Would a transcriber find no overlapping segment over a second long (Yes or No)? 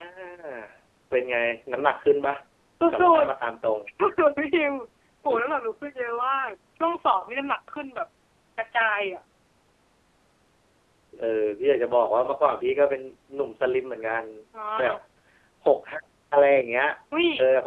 Yes